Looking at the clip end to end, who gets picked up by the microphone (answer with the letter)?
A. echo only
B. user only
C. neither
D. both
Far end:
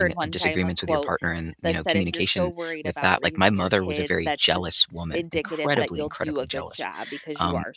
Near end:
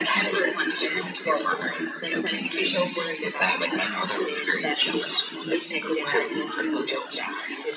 A